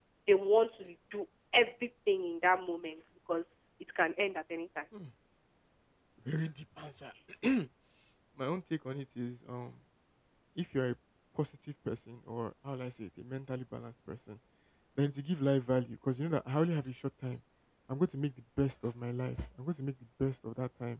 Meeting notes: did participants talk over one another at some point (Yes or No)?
No